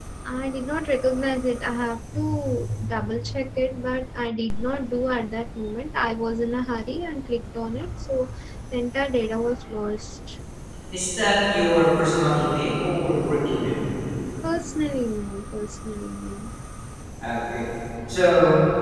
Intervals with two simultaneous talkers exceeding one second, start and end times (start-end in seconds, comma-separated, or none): none